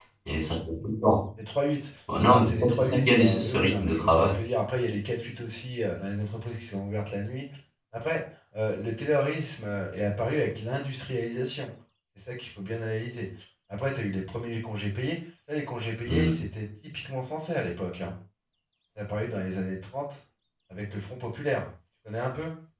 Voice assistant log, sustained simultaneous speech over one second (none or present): present